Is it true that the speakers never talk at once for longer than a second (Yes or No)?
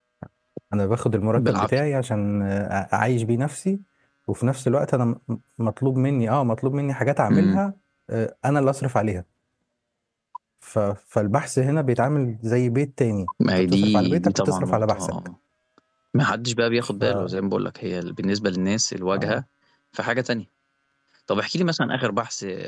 No